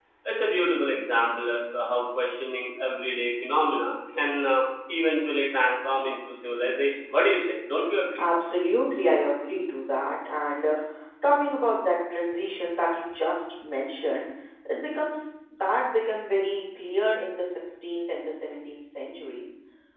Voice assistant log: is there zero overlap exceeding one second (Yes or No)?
Yes